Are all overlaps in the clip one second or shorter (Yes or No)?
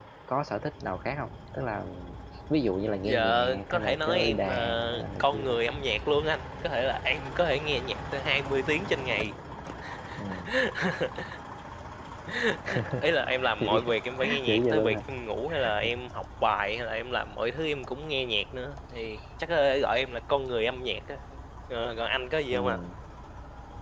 No